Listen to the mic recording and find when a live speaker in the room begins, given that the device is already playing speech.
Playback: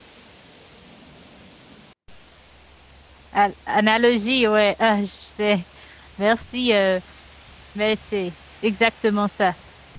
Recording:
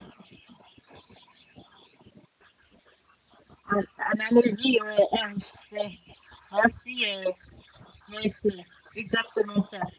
none

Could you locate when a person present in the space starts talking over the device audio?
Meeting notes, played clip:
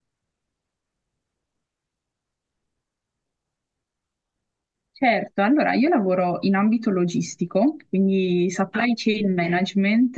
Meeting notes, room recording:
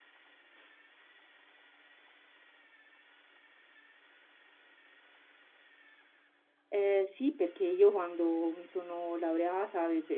7 s

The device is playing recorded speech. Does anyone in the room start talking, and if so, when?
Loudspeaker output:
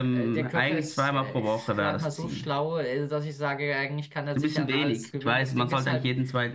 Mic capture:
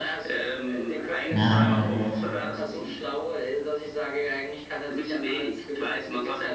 1 s

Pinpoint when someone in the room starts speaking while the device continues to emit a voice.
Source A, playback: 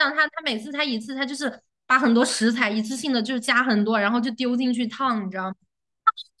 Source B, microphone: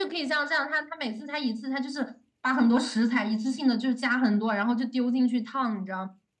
none

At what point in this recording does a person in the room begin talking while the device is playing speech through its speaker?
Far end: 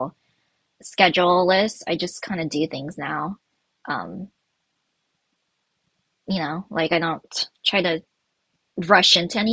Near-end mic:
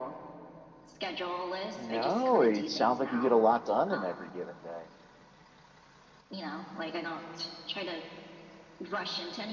2 s

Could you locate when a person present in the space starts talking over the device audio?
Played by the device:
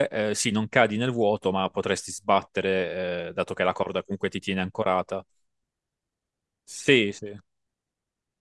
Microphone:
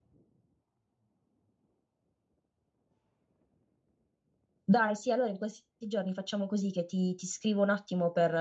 5 s

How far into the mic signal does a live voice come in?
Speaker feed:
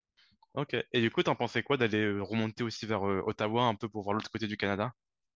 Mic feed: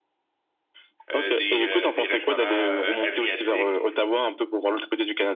1 s

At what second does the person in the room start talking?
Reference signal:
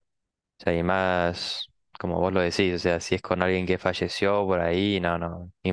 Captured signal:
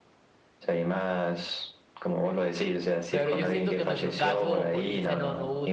3 s

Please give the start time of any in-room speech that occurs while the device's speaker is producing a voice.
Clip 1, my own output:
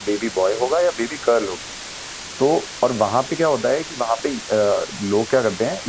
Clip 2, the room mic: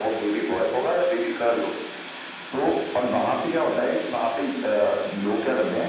none

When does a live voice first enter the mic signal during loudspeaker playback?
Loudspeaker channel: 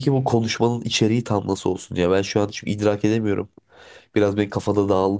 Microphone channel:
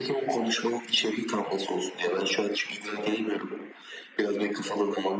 none

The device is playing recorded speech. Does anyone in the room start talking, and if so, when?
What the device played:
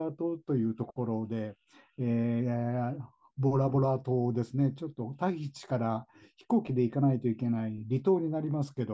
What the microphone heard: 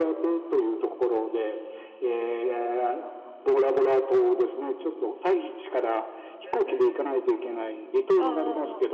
6 s

